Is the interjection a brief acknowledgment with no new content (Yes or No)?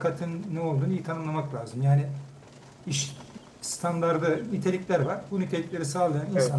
Yes